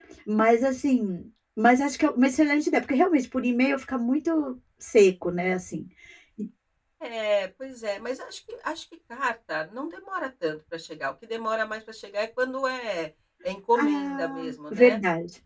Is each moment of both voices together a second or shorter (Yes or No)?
No